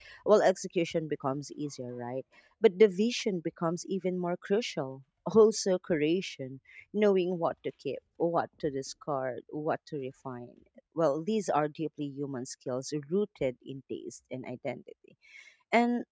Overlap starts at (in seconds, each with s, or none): none